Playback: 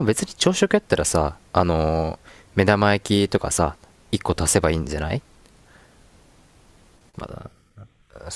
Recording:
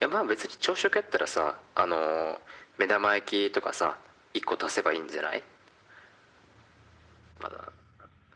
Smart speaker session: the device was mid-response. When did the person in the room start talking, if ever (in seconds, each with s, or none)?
none